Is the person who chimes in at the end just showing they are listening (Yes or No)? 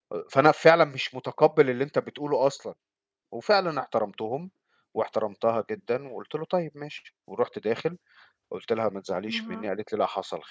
Yes